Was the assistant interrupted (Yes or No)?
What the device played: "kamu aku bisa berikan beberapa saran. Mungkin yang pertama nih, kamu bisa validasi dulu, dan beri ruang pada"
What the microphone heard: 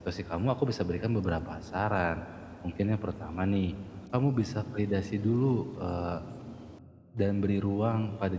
No